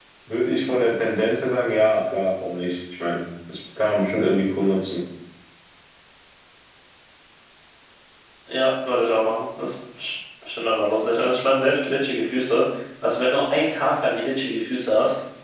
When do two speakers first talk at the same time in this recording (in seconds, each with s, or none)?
none